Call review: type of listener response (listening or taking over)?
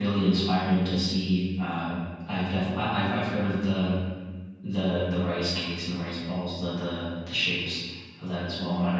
listening